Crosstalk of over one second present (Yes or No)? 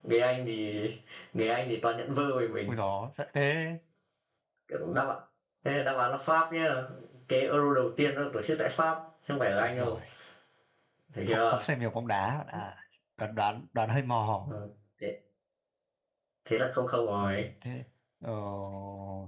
No